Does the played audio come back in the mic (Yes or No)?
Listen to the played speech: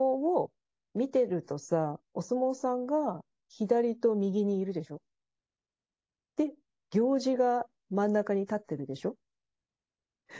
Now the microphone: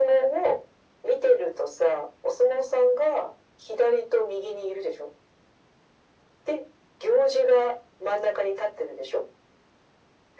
Yes